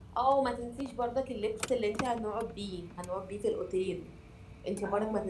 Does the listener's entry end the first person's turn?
No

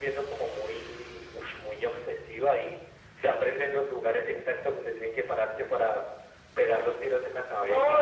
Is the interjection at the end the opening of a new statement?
Yes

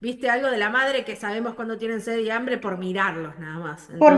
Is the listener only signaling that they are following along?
No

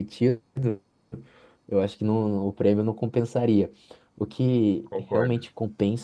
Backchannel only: Yes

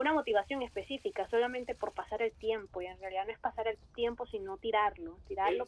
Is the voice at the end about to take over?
Yes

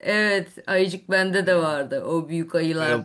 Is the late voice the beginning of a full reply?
No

